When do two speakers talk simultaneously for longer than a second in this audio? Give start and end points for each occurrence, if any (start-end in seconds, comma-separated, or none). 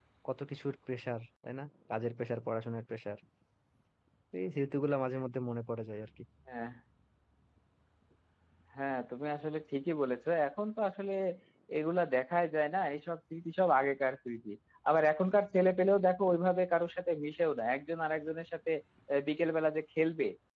none